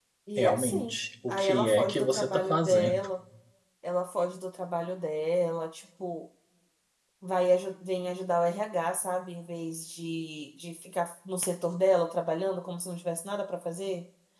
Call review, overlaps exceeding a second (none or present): present